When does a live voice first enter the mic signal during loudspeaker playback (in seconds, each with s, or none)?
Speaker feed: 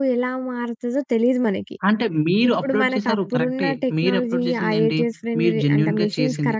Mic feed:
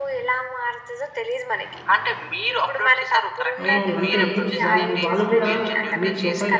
3.6 s